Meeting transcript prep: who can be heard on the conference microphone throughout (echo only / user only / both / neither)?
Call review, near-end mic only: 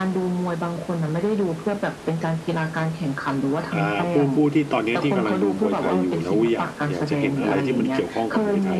both